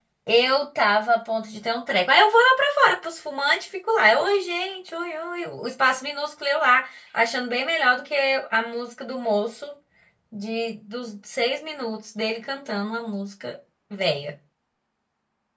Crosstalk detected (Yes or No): No